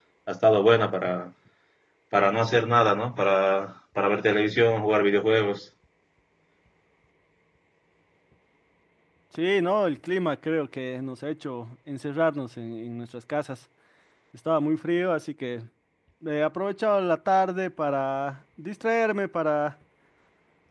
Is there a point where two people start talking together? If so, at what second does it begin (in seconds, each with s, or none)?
none